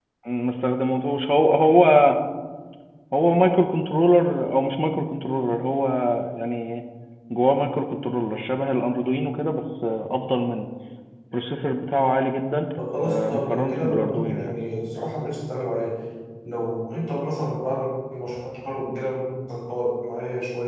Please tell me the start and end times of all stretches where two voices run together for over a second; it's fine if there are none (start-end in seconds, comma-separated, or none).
13.0-14.5